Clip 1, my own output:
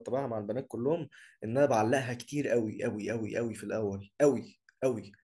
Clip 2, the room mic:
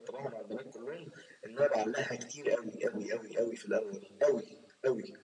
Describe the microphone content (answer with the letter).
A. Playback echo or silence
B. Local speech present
A